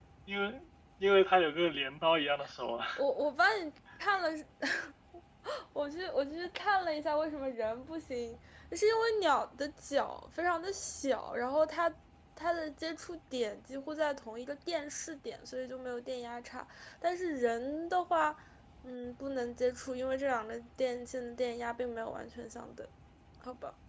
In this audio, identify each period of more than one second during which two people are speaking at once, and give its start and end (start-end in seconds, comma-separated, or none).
none